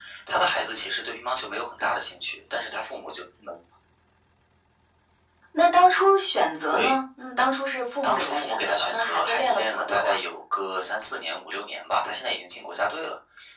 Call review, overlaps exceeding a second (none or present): present